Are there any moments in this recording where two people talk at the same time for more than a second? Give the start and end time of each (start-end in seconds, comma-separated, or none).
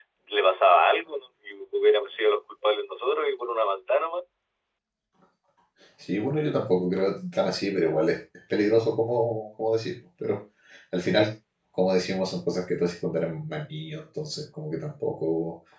none